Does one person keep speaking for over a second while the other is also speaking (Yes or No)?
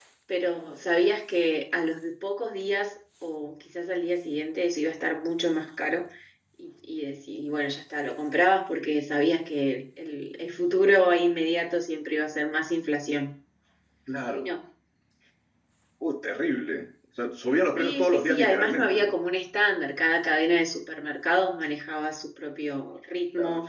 Yes